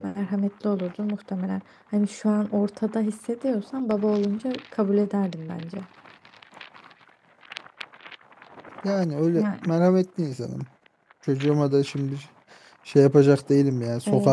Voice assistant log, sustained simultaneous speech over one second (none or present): none